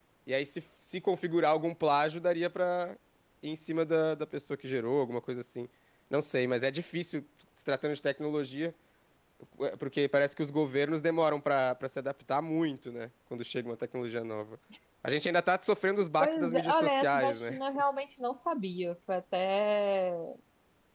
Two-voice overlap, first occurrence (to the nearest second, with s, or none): 16 s